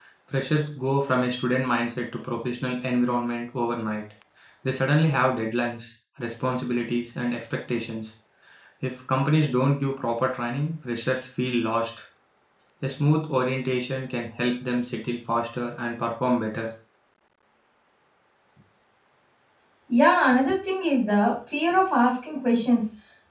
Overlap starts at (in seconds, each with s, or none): none